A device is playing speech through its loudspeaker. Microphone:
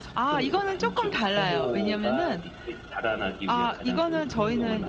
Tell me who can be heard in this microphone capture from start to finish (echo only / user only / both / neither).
both